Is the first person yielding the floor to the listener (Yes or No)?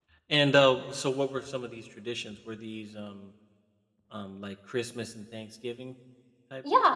Yes